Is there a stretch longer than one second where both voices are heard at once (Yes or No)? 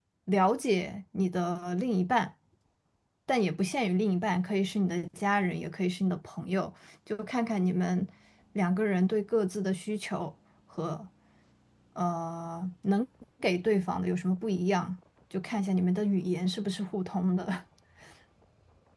No